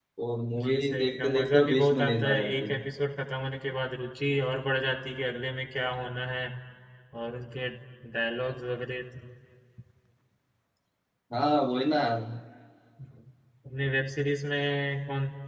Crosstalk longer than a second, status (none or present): present